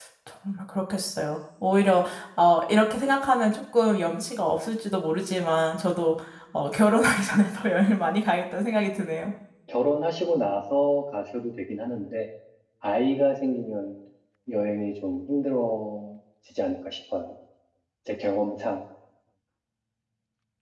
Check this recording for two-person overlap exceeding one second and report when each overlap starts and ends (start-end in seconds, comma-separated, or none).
none